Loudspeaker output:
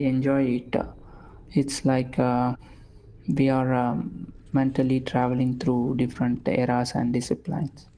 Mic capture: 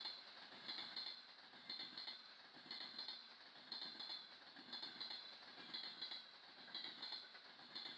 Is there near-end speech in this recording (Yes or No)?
No